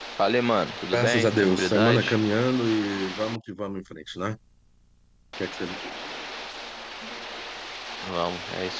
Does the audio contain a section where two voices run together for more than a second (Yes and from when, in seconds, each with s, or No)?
Yes, from 0.9 s